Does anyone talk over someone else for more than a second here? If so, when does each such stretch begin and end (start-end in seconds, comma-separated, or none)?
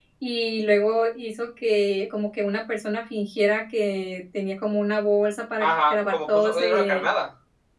5.6-7.1